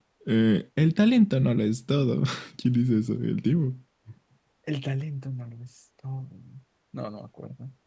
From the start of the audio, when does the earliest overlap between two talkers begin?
none

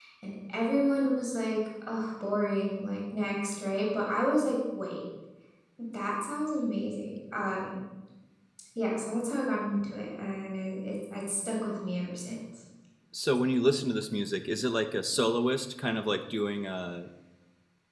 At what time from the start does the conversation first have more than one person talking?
none

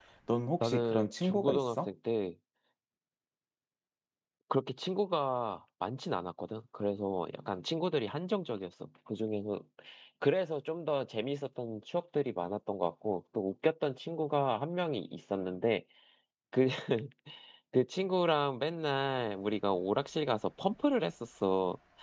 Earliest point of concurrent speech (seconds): 0.6 s

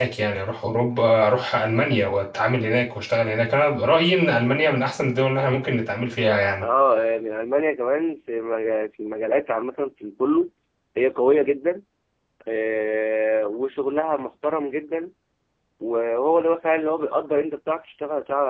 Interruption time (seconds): none

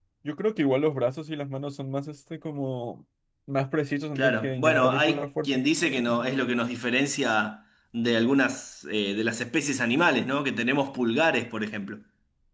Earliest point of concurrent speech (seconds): 4.2 s

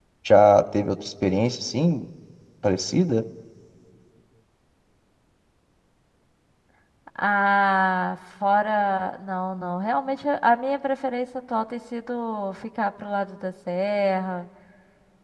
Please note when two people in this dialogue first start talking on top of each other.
none

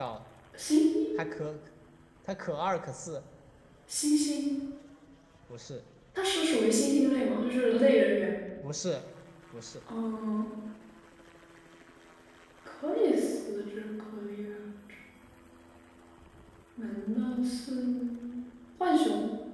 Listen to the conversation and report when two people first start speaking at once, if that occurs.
none

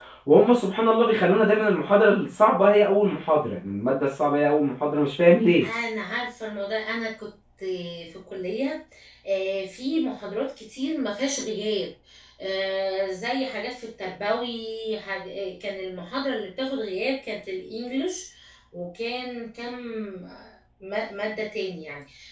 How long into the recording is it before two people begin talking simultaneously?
none

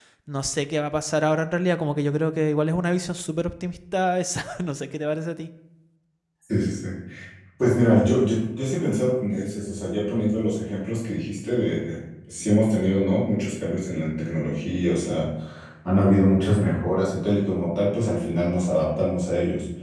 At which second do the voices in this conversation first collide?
none

